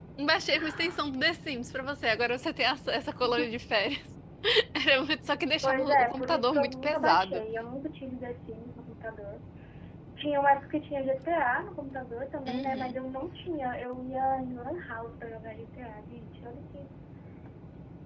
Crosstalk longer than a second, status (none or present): present